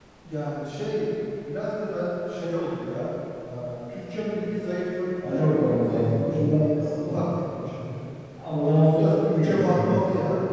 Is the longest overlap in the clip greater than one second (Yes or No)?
Yes